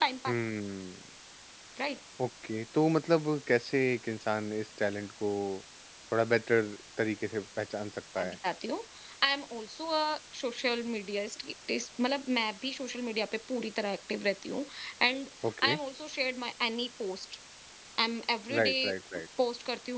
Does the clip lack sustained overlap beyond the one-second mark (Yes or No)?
Yes